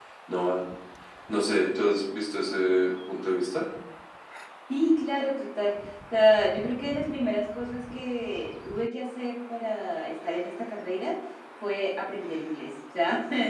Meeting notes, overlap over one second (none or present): none